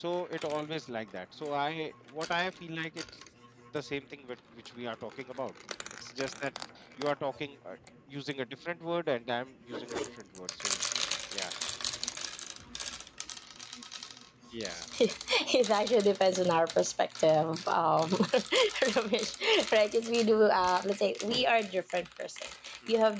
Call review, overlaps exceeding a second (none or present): none